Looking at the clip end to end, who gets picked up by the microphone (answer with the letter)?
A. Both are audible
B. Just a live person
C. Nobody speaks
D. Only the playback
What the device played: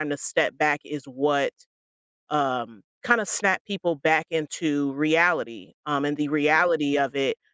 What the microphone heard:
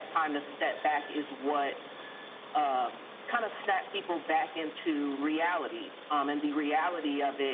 D